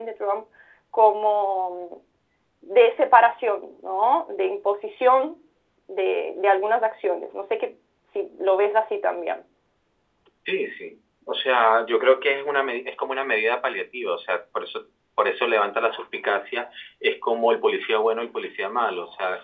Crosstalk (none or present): none